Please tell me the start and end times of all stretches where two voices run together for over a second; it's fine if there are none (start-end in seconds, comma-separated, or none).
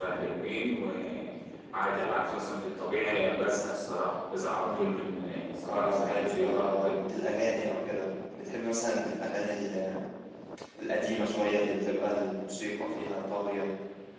5.7-7.0